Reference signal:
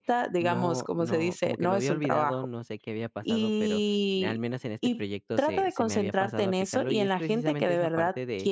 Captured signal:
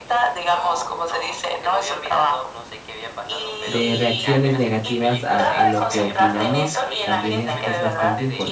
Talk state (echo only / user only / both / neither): both